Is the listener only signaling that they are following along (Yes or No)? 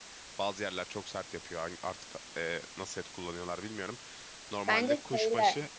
Yes